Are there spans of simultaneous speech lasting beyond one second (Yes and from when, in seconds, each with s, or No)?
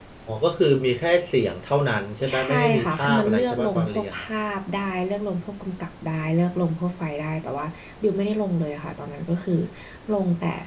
Yes, from 2.2 s